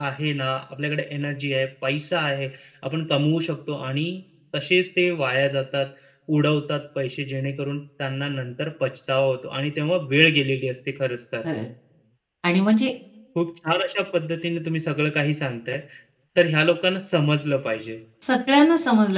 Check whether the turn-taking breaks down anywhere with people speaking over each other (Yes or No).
No